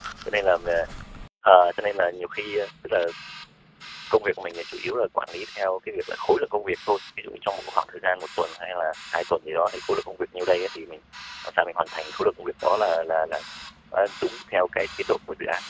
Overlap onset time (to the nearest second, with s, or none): none